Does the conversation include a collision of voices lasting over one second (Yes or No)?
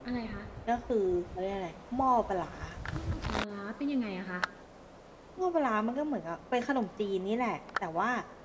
No